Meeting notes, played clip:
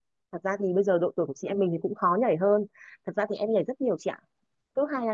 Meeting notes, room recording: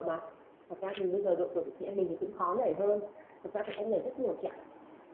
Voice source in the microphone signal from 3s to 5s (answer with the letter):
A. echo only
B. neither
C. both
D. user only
A